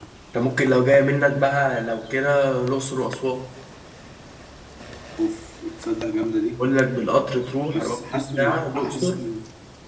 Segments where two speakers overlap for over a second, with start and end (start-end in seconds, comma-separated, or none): 7.7-9.2